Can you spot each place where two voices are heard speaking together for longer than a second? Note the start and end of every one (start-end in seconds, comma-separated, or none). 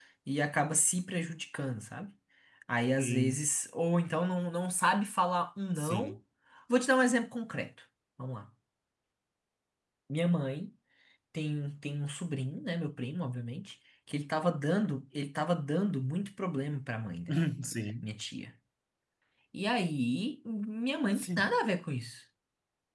none